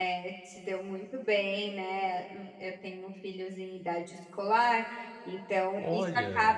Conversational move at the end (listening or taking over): listening